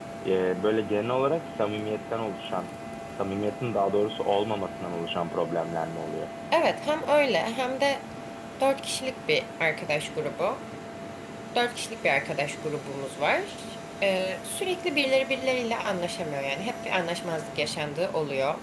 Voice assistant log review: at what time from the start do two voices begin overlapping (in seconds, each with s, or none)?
none